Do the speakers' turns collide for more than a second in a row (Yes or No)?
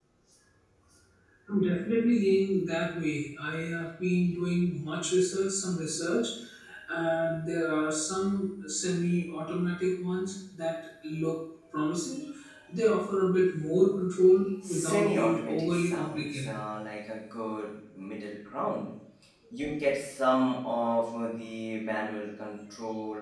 Yes